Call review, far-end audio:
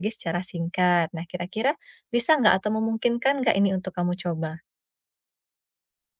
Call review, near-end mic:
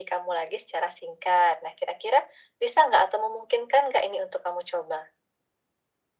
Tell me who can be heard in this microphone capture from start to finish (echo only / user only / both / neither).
echo only